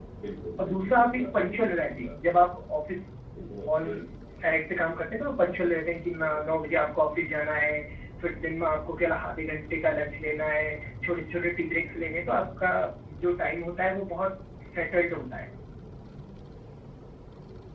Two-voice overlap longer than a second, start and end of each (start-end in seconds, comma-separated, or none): 0.6-2.2